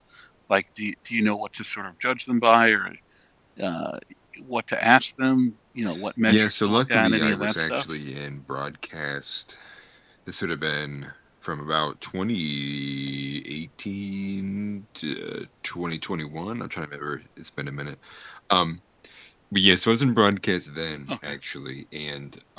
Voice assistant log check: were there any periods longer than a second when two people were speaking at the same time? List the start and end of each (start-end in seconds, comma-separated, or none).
6.3-7.8